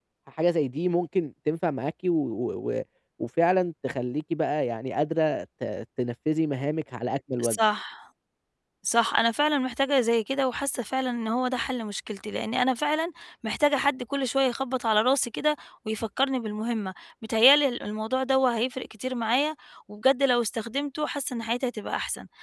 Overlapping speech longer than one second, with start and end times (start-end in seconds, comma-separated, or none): none